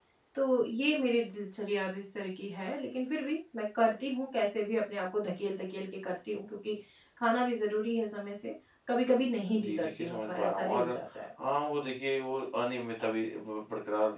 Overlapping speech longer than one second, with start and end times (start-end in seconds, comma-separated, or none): 9.6-10.9